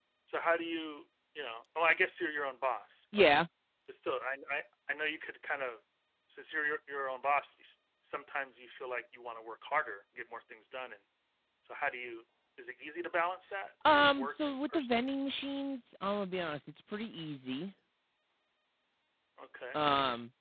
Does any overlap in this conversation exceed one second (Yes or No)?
Yes